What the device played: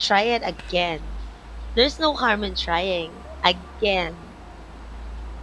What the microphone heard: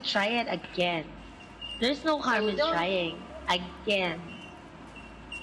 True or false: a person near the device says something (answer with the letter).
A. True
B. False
A